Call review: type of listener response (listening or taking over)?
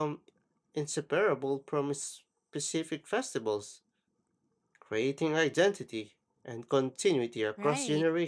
taking over